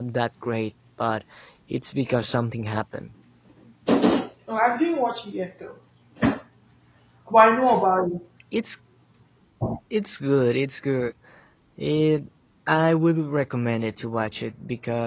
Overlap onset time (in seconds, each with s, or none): none